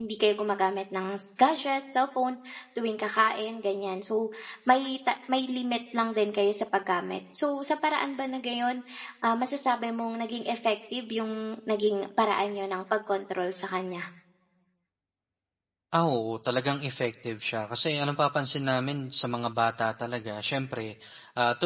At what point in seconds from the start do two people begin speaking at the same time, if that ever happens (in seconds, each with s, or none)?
none